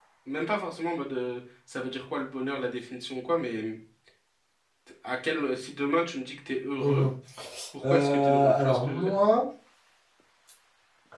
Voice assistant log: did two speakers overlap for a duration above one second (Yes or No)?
Yes